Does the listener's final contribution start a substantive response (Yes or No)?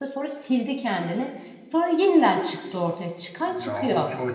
Yes